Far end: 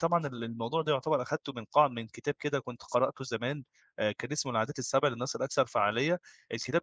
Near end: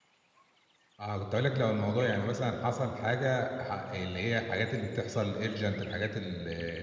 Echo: none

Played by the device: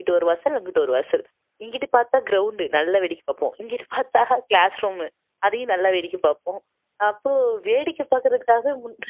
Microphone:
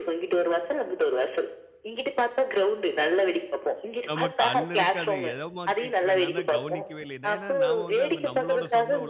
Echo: present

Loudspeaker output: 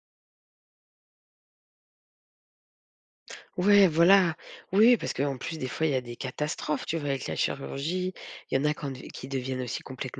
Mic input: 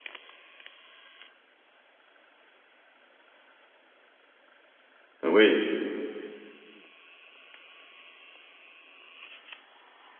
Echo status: none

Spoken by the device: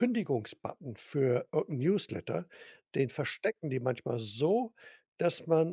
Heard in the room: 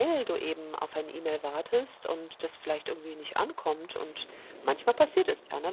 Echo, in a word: none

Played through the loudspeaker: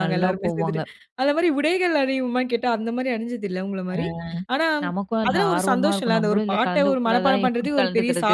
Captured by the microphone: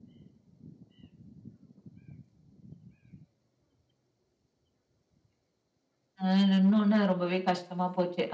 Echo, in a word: none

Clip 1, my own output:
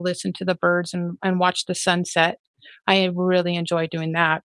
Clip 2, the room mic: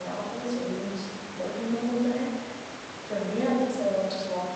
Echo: none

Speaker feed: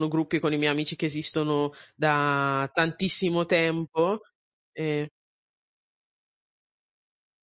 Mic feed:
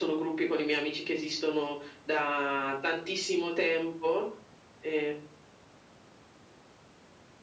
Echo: present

